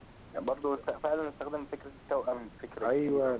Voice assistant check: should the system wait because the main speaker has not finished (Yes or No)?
No